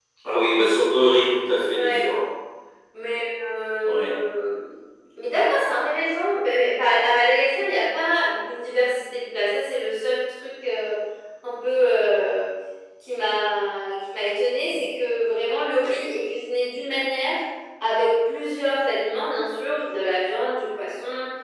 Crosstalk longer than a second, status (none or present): none